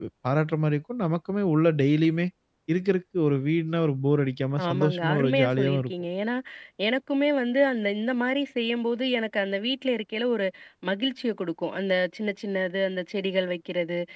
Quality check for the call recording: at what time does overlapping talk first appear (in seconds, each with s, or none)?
4.6 s